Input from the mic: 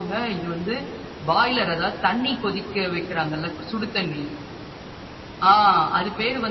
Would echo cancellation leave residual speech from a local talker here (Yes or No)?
No